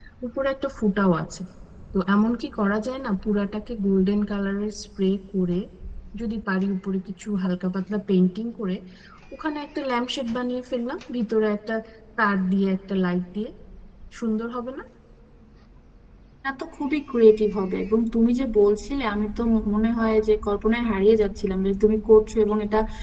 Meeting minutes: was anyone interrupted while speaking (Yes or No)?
No